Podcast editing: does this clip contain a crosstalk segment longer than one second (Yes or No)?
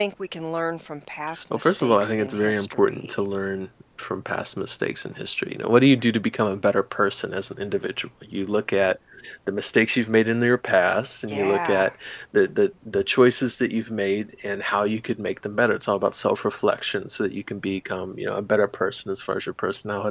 Yes